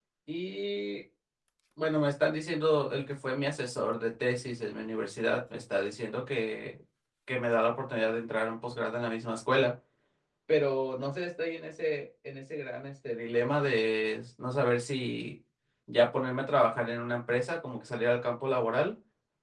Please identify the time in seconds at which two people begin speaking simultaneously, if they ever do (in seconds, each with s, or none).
none